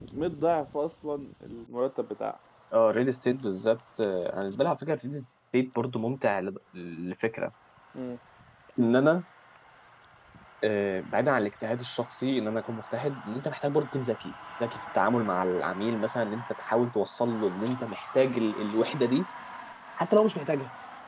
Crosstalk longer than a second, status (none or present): none